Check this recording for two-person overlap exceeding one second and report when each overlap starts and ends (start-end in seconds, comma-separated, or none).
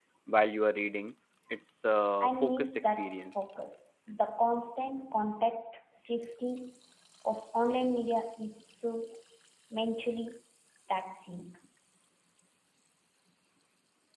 2.2-3.4